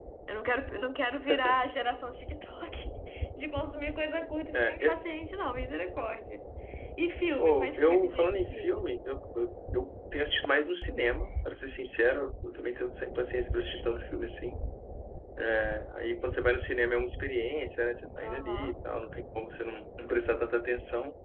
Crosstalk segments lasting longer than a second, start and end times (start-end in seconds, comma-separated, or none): 7.4-8.9